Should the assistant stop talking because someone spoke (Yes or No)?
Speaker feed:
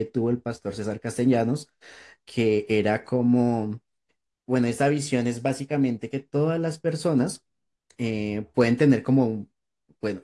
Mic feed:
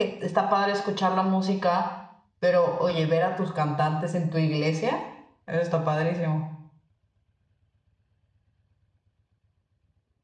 Yes